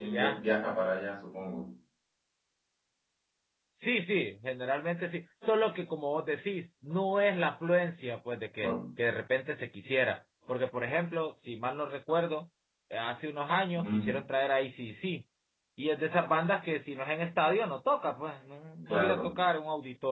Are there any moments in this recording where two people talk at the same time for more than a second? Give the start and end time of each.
none

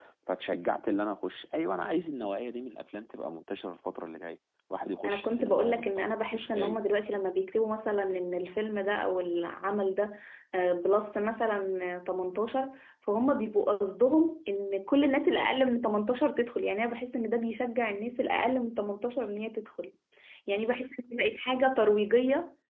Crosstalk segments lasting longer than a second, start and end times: 5.0-6.8

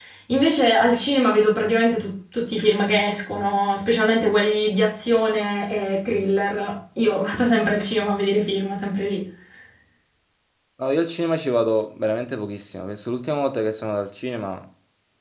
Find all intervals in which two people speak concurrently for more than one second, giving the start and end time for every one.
none

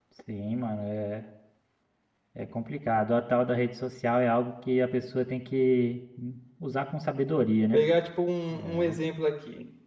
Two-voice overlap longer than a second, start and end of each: none

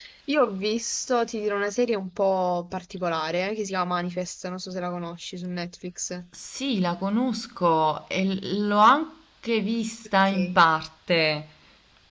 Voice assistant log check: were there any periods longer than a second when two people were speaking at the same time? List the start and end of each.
none

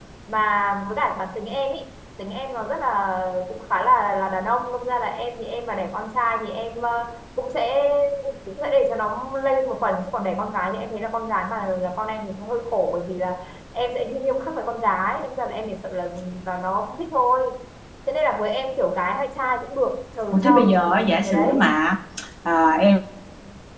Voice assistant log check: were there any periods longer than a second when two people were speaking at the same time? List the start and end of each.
20.3-21.5

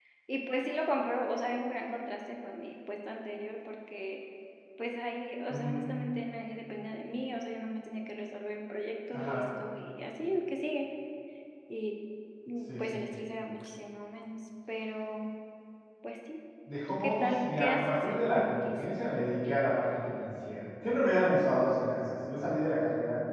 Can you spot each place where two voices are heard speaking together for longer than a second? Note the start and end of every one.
16.9-18.8

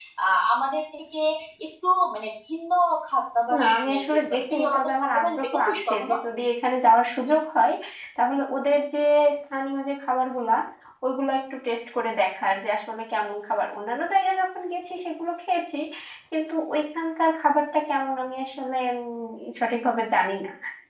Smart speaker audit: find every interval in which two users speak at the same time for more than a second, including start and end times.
3.6-6.1

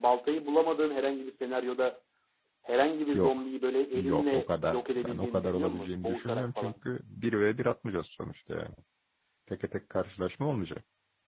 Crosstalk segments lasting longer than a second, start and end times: 3.9-6.7

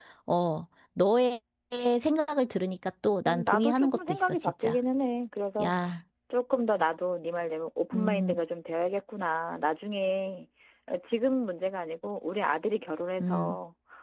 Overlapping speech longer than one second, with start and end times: 3.2-4.8

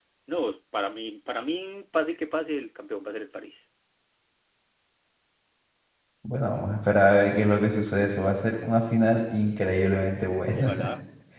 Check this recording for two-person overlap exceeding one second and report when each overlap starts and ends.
none

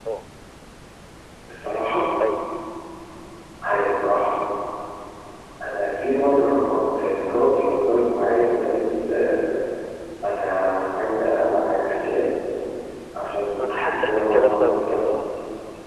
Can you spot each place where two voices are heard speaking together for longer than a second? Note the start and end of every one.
13.6-15.1

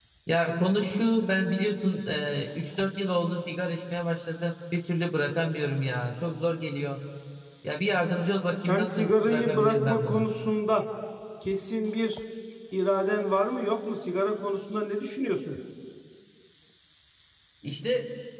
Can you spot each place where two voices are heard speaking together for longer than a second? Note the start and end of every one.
8.7-10.3

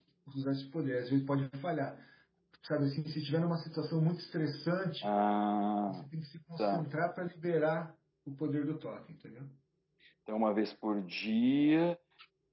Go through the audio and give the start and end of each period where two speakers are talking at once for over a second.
none

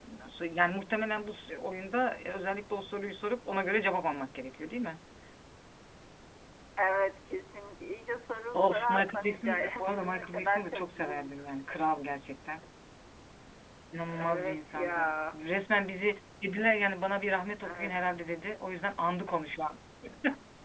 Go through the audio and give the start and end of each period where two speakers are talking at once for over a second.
8.5-11.3, 14.1-15.4

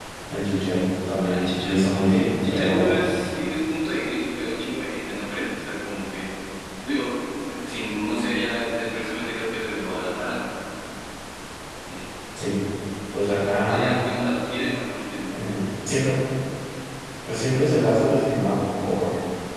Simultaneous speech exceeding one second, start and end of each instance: 1.2-3.0

